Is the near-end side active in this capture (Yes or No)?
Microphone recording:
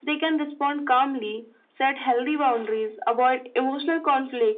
No